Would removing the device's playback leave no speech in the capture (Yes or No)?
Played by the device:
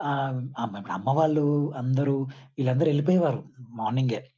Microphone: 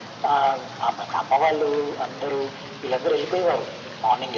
Yes